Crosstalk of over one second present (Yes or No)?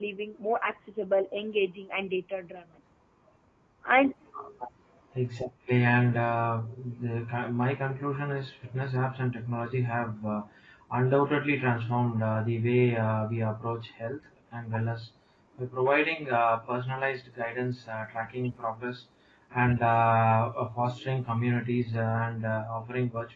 No